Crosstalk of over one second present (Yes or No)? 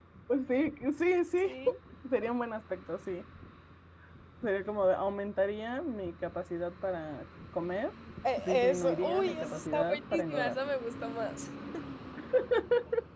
Yes